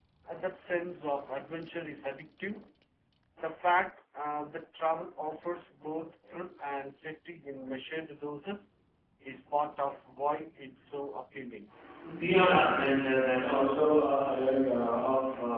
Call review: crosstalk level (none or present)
none